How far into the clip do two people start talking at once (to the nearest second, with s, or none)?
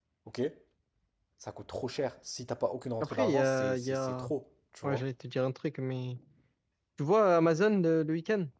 3 s